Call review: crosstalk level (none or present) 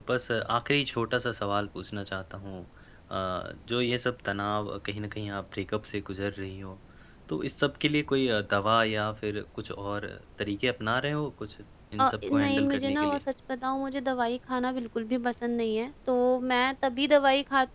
present